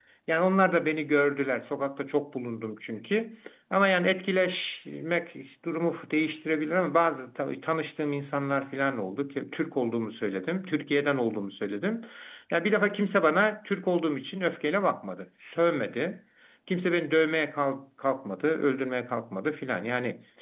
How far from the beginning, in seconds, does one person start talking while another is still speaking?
none

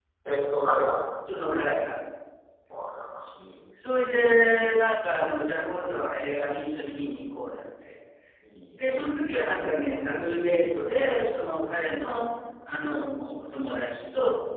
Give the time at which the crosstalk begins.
8.8 s

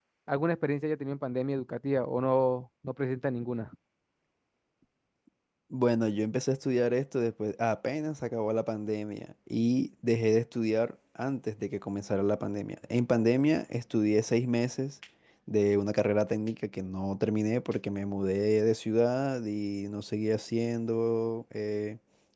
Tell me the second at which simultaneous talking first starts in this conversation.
none

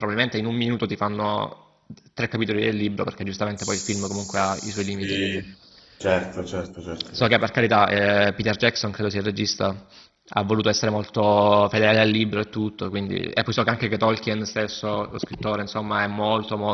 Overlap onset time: 3.6 s

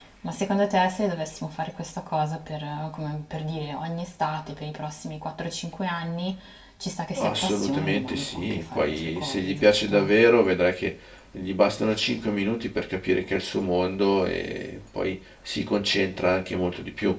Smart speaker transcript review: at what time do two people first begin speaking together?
7.2 s

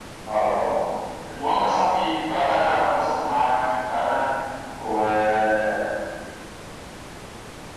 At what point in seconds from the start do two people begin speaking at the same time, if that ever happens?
none

